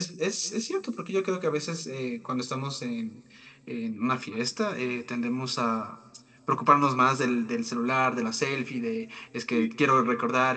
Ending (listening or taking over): listening